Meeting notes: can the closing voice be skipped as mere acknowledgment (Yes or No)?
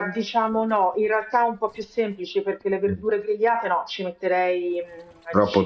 Yes